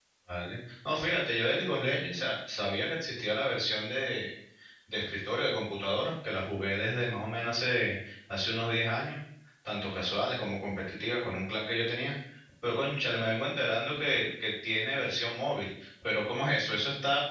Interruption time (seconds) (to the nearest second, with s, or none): none